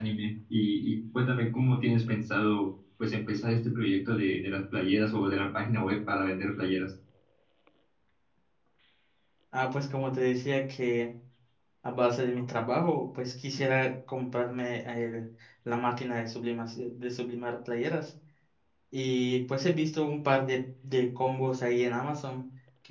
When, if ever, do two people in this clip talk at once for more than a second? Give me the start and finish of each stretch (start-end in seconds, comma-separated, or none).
none